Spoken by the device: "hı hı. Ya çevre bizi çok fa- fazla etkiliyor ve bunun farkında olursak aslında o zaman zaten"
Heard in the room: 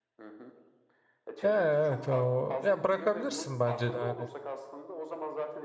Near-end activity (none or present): present